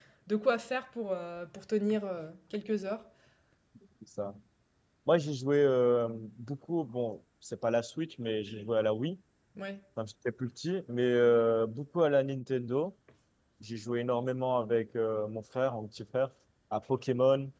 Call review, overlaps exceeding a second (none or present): none